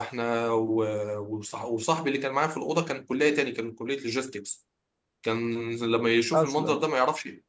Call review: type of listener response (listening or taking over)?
listening